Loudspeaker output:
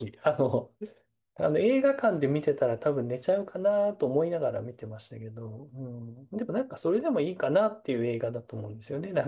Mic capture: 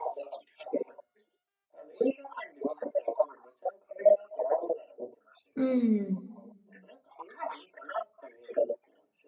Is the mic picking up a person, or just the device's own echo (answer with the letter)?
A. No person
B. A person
B